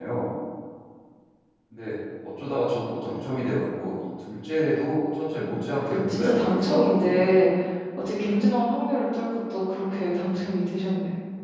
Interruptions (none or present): present